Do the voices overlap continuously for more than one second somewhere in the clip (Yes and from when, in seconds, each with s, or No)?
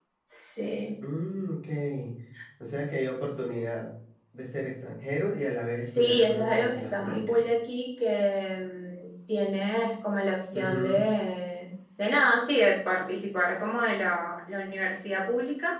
Yes, from 5.8 s